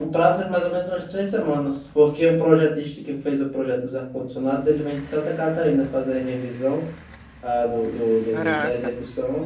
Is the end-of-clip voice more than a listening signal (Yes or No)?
No